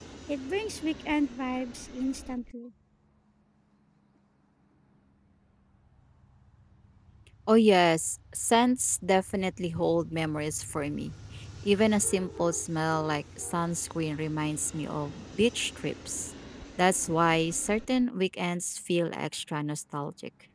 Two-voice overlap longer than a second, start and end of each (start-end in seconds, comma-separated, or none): none